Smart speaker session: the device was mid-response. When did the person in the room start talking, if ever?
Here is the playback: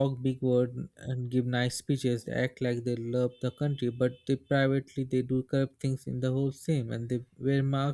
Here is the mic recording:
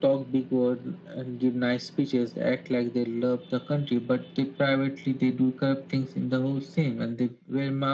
none

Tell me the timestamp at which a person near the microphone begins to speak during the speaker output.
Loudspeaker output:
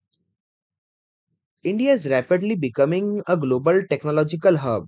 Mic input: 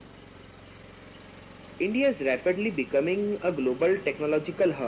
none

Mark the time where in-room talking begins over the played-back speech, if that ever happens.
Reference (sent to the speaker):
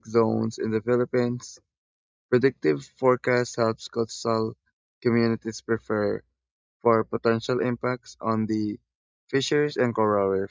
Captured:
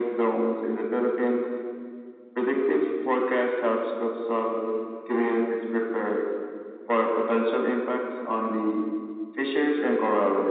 none

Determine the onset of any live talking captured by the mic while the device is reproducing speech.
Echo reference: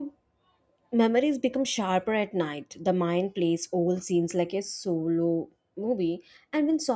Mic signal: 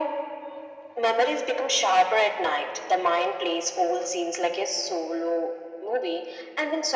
none

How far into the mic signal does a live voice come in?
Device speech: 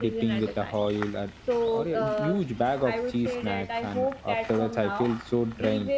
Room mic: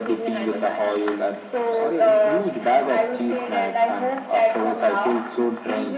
none

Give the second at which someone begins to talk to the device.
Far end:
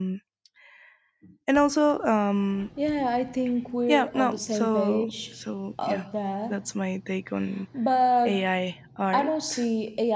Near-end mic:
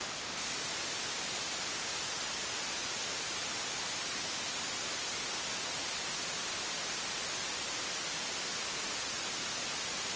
none

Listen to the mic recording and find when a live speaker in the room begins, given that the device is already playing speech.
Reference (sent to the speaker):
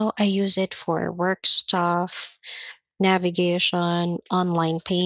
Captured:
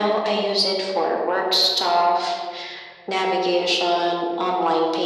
none

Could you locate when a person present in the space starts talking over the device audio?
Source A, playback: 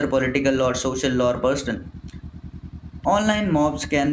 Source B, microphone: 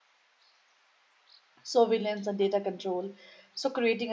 1.6 s

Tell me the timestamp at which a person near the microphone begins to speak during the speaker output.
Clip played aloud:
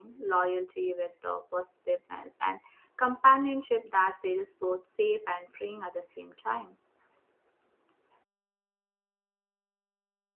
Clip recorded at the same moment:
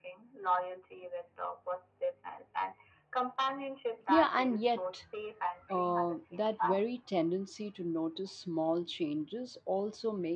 4.1 s

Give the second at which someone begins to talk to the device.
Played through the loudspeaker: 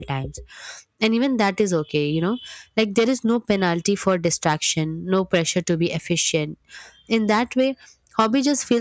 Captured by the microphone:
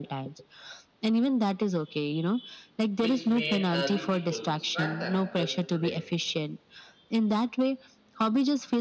3.0 s

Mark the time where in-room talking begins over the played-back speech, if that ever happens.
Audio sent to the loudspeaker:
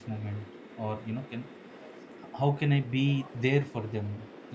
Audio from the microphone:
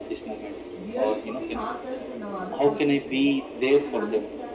0.8 s

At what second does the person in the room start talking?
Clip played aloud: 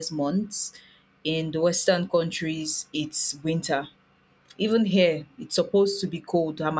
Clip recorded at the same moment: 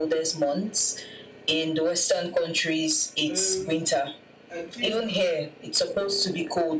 3.3 s

